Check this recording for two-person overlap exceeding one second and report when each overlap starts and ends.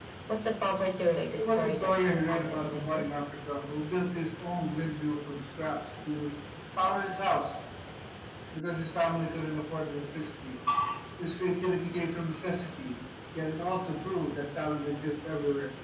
1.4-3.1

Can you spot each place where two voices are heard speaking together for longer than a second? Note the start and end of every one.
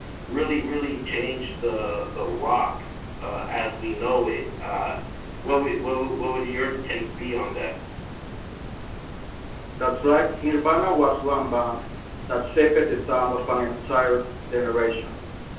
none

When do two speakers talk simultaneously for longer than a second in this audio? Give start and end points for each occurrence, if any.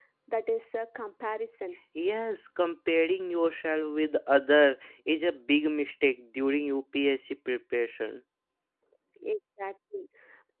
none

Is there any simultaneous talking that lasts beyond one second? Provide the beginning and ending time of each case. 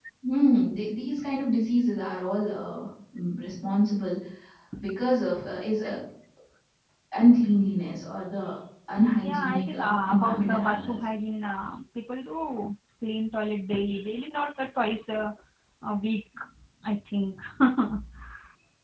9.2-11.0

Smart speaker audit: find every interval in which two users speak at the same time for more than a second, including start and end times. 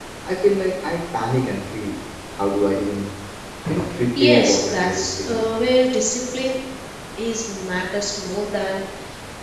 4.2-5.5

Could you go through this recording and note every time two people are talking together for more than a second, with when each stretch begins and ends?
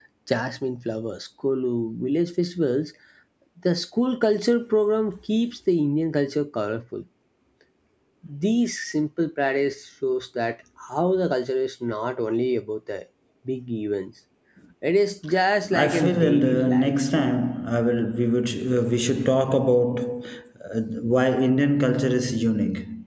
15.7-17.2

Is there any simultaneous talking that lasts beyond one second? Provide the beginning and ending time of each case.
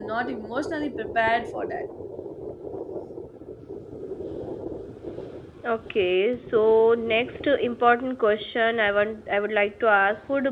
none

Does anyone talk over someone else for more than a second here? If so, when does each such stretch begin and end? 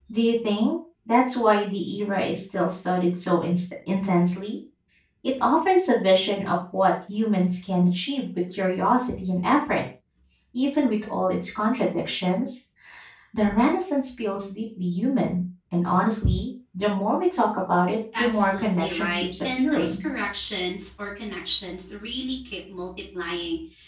18.2-20.0

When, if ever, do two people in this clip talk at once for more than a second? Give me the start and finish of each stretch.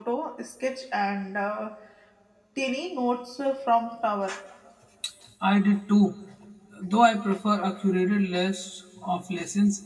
none

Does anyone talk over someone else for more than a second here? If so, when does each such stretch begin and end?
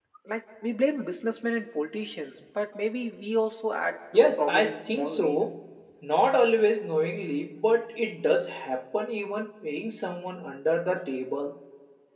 4.1-5.4

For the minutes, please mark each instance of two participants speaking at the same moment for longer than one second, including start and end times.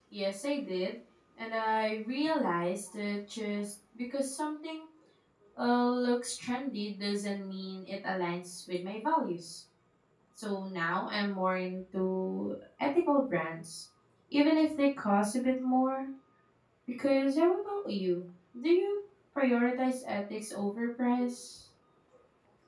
none

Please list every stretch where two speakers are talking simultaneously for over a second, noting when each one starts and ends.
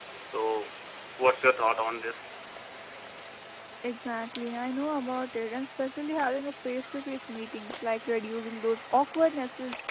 none

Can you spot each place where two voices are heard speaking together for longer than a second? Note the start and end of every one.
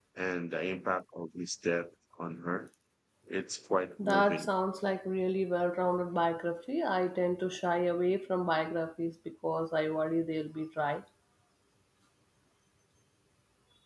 none

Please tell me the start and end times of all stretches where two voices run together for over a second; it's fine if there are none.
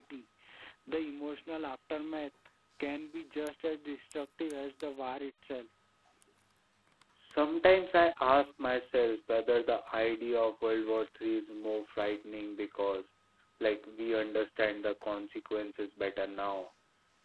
none

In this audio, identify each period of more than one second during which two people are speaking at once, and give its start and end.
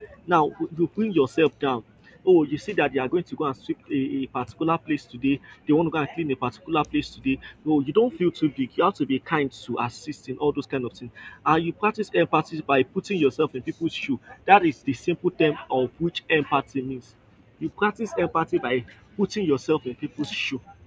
none

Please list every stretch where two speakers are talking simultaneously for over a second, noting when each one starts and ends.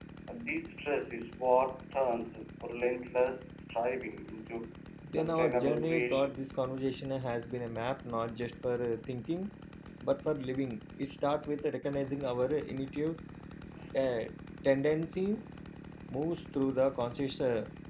5.2-6.4

